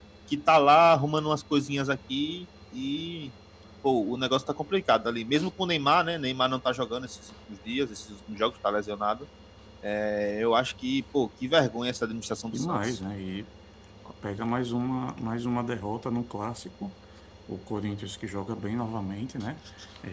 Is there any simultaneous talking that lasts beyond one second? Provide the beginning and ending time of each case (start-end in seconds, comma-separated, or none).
none